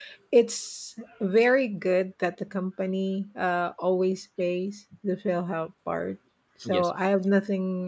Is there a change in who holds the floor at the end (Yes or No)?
No